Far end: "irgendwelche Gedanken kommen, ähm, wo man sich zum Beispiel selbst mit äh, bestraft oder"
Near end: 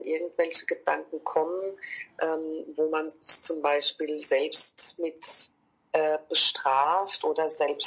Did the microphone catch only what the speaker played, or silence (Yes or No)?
Yes